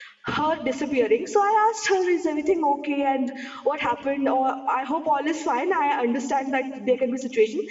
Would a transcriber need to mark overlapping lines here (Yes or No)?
No